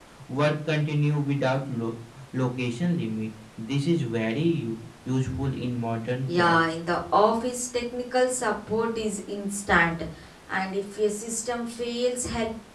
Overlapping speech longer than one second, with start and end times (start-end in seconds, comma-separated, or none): none